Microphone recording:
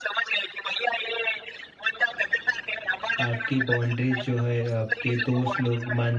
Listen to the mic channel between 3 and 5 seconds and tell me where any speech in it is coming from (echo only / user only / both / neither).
both